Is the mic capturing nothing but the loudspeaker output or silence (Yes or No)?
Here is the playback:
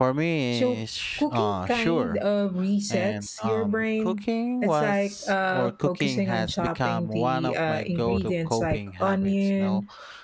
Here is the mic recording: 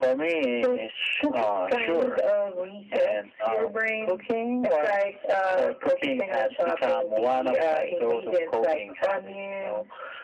Yes